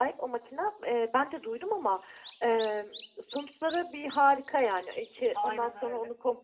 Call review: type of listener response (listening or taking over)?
listening